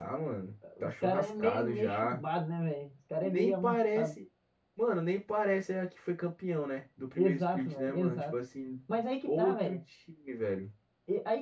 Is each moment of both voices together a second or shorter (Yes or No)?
No